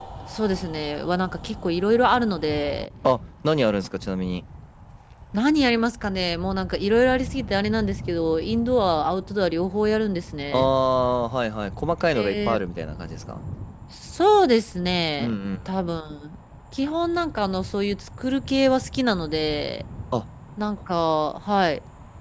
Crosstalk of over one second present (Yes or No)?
No